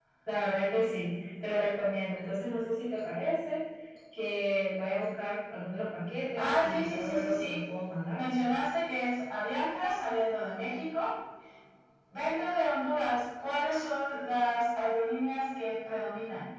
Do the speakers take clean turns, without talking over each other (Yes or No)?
No